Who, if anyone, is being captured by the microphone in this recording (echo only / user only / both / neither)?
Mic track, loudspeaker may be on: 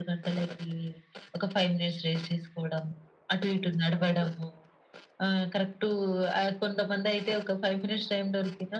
echo only